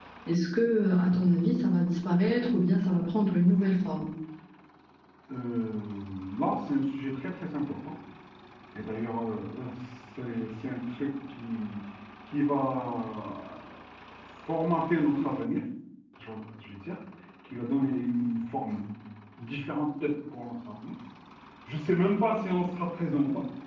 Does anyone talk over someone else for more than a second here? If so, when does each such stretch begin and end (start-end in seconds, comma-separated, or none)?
none